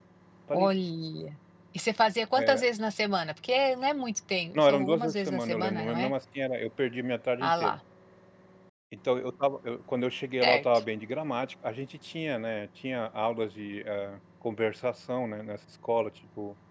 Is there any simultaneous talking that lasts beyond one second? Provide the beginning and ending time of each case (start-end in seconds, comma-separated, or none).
4.5-6.1